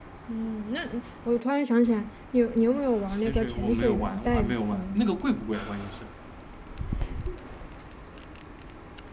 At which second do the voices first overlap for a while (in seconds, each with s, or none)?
3.2 s